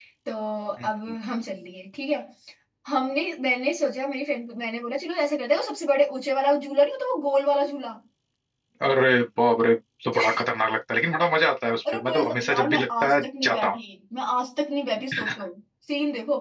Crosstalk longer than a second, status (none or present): present